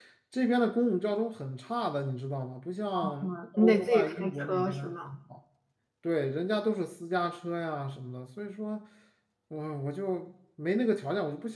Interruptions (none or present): present